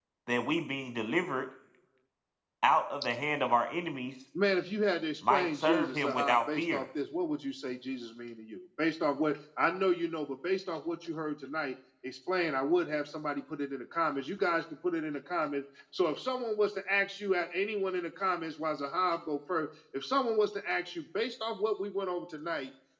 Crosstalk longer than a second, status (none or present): present